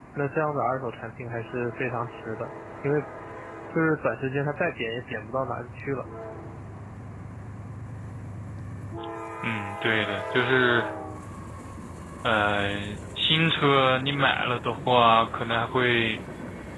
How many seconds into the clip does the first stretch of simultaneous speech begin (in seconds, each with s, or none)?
none